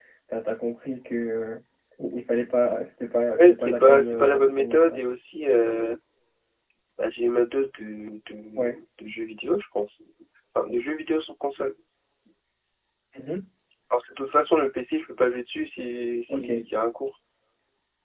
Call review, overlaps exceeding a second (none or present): present